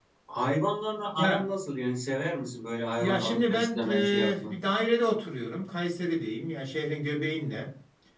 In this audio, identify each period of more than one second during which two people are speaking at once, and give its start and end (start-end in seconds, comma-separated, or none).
3.0-4.5